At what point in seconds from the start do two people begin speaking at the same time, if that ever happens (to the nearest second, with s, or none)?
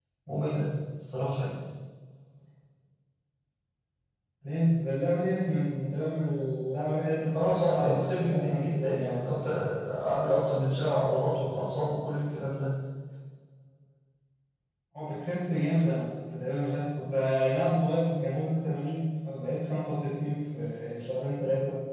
7 s